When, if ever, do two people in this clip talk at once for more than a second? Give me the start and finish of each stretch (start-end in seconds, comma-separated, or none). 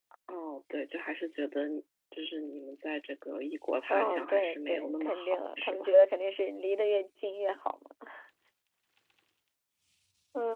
3.9-5.9